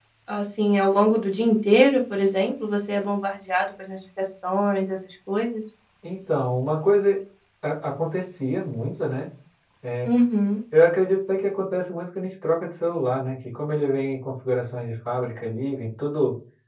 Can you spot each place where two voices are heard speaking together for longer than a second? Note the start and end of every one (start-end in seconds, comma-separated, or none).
none